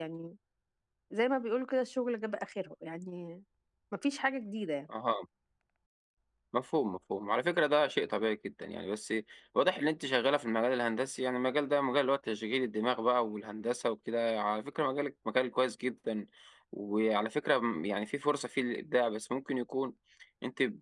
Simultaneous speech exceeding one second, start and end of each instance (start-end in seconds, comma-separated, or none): none